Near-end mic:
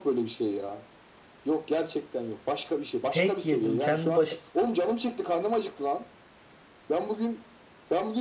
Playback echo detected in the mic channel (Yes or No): Yes